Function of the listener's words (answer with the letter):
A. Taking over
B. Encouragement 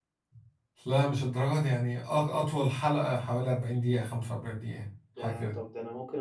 A